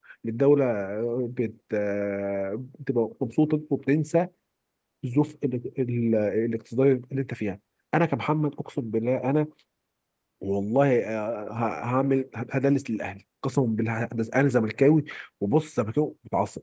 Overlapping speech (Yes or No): No